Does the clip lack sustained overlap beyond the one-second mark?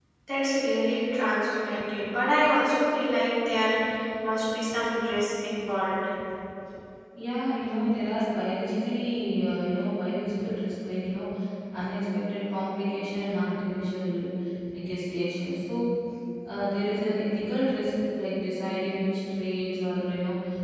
Yes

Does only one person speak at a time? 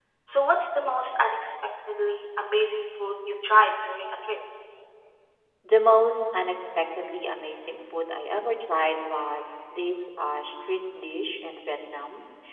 Yes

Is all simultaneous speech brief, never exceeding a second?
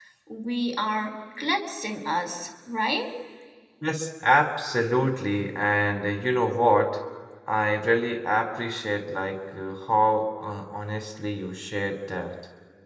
Yes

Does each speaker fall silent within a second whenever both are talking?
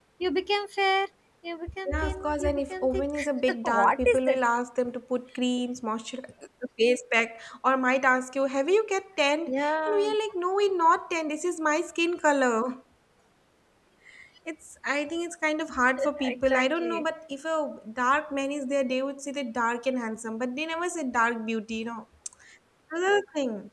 No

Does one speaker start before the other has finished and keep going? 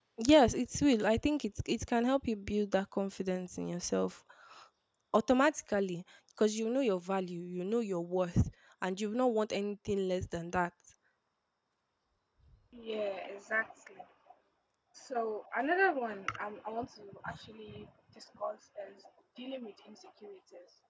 No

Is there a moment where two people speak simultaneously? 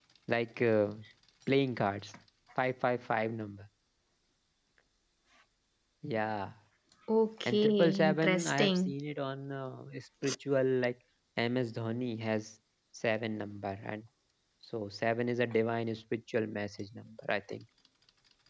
Yes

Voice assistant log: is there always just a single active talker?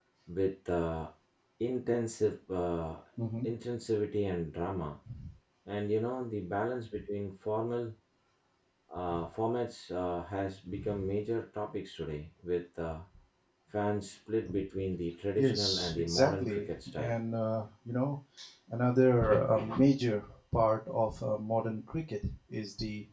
No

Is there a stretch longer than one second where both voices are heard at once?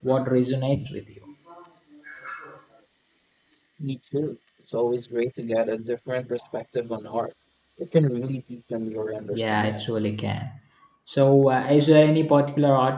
No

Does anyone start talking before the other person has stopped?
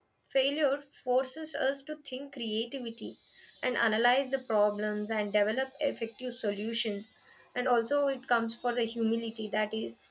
No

